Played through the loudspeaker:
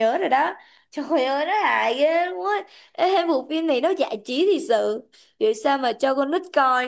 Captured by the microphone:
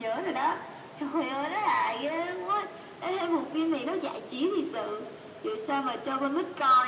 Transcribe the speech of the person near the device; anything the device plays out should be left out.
none

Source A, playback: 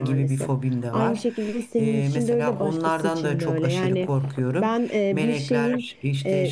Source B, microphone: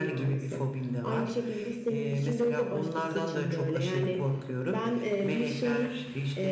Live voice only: none

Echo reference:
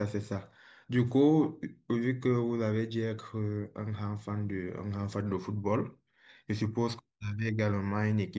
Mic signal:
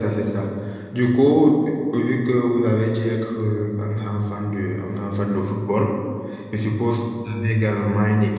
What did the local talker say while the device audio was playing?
none

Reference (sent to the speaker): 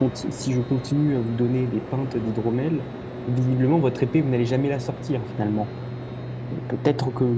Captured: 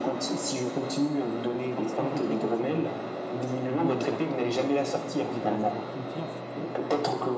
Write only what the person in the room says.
Par simple précaution, voilà. L'idée n'est pas tant de ne pas avoir confiance

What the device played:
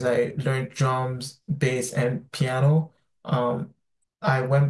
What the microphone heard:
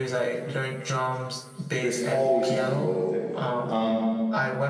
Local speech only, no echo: There's always someone to go with it. Um,

